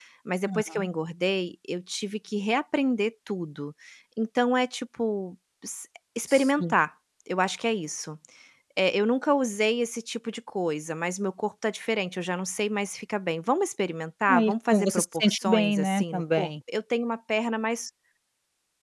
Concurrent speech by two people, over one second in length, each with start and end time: 14.3-16.5

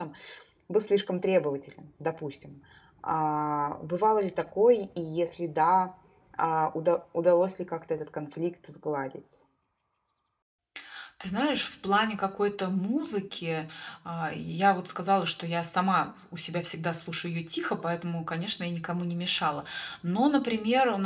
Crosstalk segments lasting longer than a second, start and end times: none

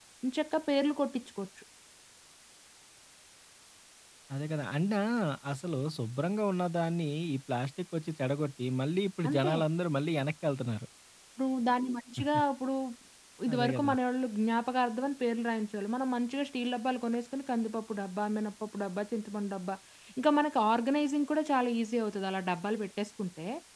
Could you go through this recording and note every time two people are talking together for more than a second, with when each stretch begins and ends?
none

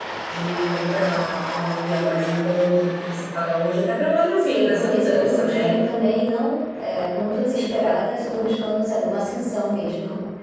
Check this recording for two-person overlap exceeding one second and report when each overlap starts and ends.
4.4-5.7

